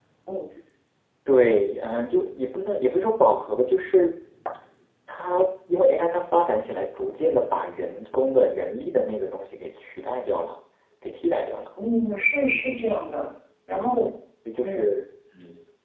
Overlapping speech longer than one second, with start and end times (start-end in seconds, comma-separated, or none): none